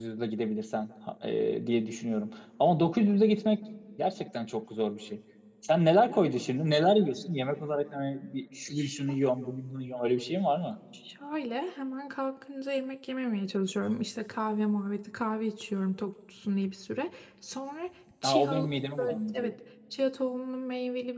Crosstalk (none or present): present